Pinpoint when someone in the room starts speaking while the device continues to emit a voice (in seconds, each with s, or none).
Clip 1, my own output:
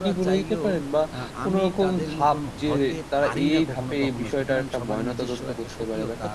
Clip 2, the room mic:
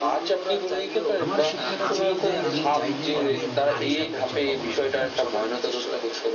1.2 s